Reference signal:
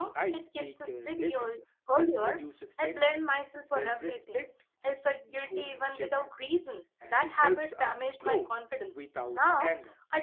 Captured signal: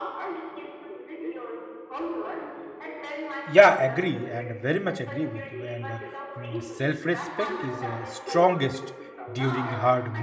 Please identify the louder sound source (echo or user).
user